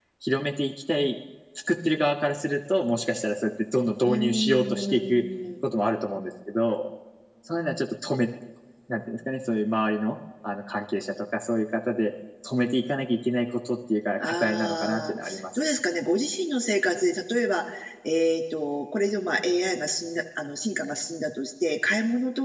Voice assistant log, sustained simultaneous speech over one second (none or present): present